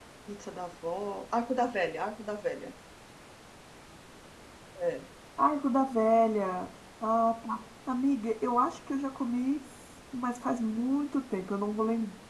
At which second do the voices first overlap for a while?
none

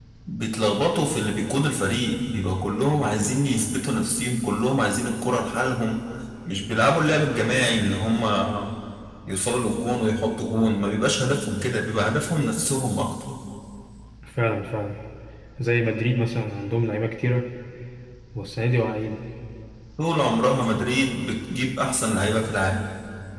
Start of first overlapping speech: none

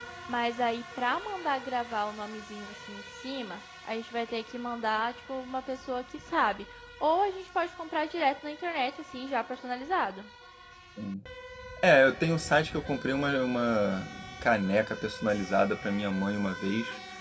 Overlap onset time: none

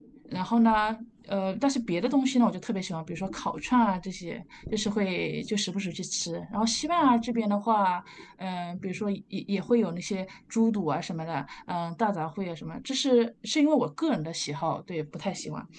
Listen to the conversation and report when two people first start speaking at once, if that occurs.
none

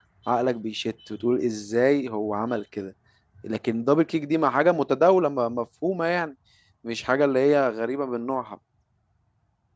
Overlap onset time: none

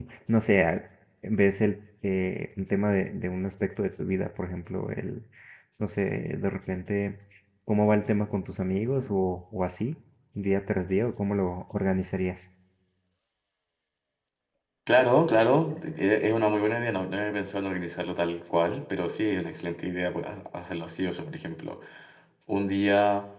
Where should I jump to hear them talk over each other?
none

